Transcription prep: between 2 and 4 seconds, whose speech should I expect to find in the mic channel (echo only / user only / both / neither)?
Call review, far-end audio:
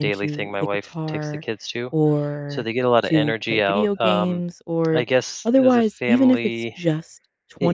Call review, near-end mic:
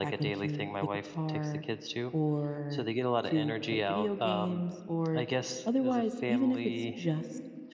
echo only